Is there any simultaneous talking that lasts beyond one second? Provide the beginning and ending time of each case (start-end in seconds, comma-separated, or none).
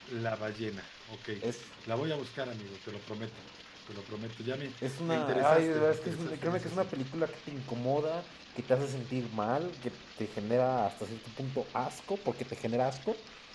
4.8-7.0